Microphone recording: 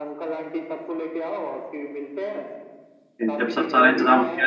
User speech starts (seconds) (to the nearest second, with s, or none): 3 s